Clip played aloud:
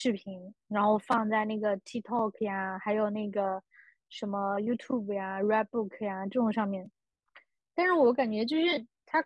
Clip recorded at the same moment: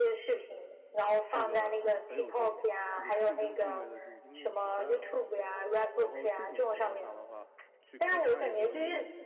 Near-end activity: present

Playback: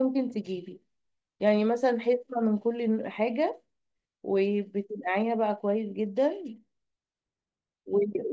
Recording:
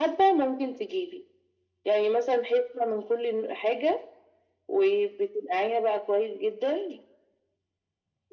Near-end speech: none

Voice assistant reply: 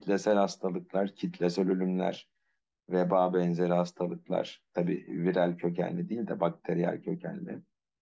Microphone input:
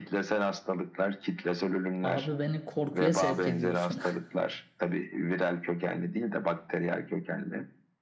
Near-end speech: present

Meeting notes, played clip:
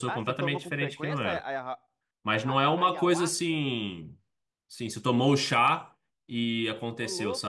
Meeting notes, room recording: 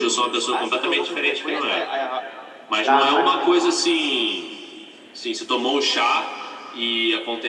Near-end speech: present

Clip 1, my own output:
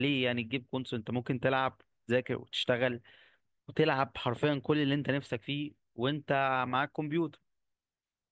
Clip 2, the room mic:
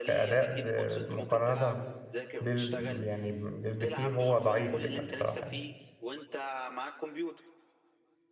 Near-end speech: present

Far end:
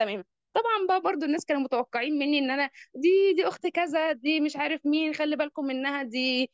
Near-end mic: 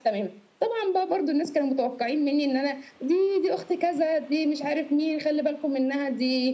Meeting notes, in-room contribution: none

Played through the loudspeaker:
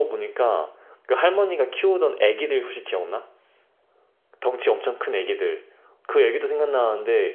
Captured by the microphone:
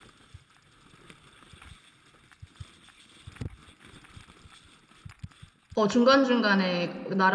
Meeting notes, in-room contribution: present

